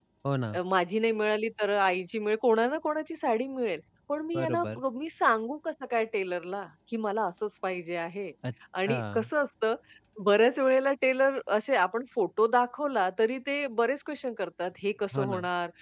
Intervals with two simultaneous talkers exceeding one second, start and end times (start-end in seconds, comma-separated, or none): none